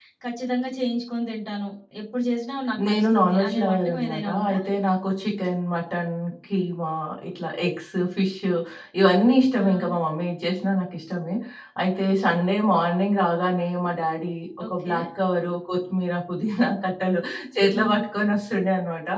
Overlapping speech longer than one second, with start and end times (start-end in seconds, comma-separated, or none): 2.8-4.6